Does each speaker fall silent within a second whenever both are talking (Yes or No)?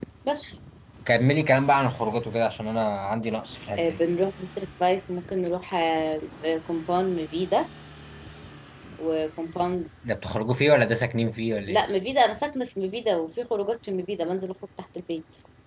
Yes